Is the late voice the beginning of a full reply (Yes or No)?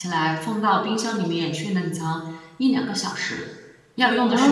Yes